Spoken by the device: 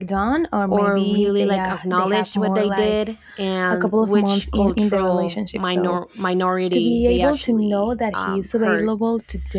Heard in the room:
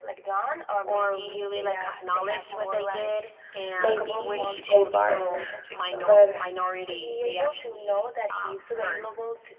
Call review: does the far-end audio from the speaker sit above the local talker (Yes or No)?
No